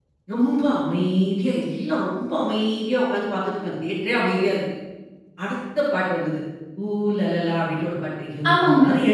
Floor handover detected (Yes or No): No